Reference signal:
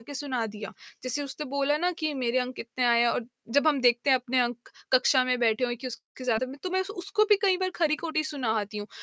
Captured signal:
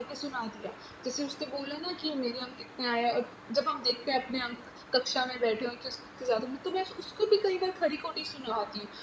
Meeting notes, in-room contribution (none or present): none